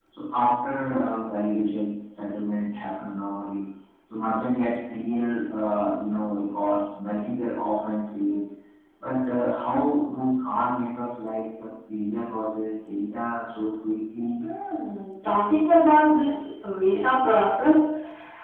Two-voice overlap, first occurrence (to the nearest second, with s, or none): none